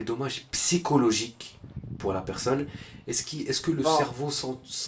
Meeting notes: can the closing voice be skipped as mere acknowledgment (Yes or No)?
Yes